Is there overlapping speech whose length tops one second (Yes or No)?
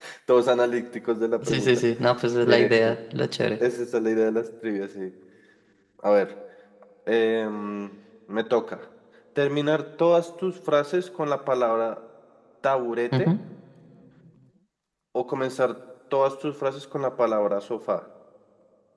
No